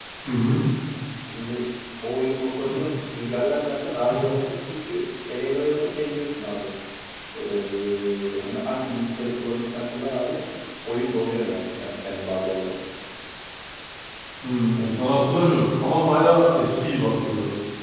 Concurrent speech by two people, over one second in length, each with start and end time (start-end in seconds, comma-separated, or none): none